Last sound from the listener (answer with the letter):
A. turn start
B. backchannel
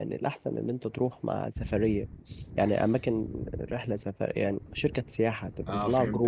A